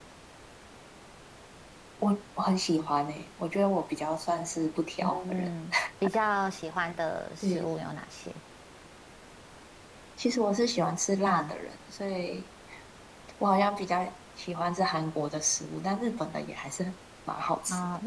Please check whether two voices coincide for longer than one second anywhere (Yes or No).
No